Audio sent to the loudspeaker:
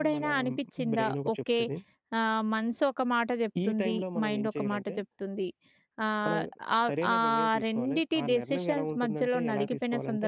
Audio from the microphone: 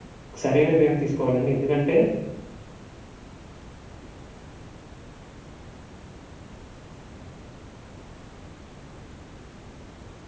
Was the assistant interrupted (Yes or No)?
Yes